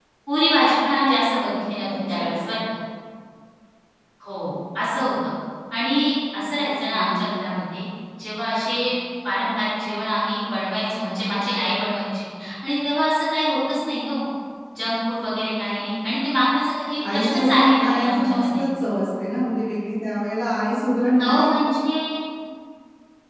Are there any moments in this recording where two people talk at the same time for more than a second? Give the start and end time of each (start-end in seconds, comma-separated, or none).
17.1-18.6